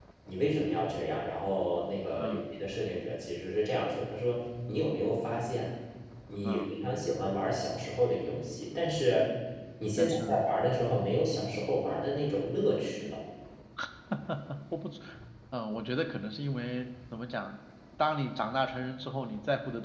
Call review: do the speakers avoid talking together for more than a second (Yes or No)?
Yes